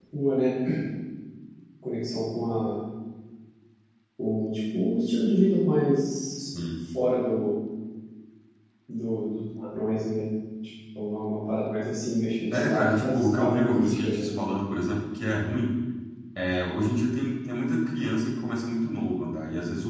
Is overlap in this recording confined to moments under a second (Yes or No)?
No